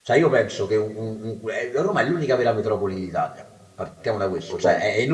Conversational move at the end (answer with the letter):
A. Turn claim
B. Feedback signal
B